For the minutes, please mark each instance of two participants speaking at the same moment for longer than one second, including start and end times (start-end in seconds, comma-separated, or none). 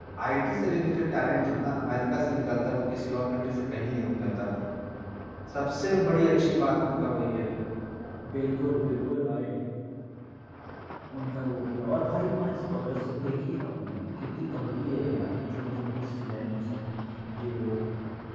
none